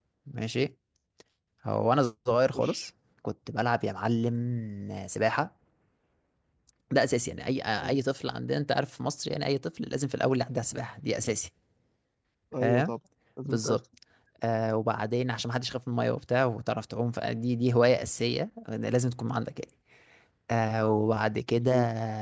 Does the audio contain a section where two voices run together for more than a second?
No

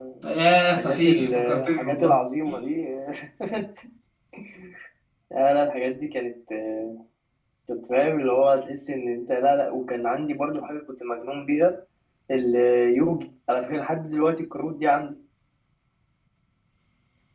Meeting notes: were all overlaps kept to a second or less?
No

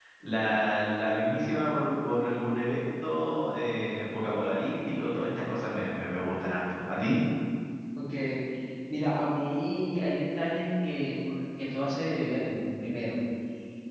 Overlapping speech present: No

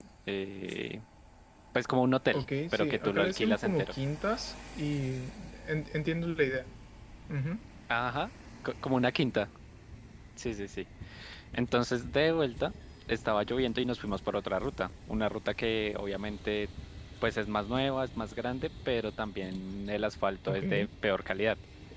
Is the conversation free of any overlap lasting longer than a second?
No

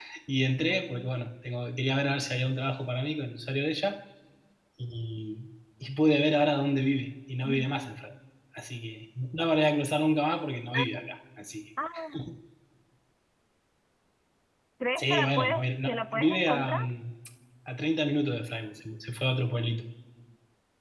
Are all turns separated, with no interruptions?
No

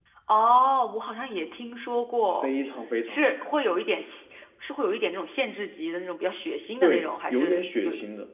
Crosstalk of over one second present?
Yes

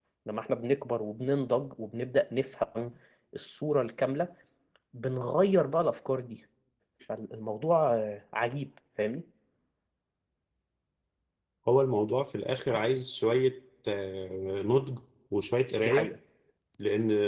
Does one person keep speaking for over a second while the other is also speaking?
No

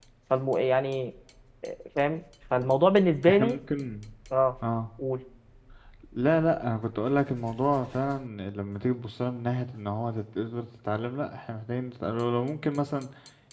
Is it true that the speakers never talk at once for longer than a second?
Yes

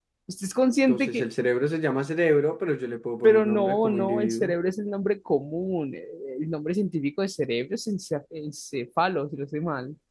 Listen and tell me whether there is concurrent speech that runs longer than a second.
Yes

